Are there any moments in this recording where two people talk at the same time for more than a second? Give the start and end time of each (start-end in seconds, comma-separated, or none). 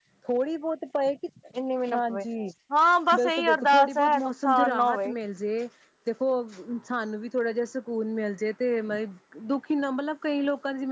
3.1-5.1